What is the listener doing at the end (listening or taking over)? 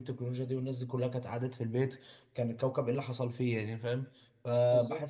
listening